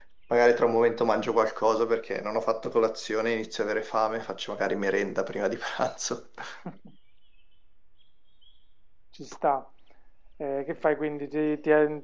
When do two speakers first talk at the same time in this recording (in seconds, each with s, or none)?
none